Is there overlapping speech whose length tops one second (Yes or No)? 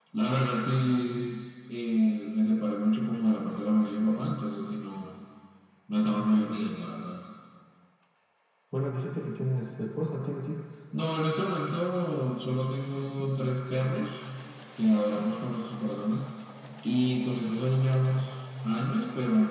No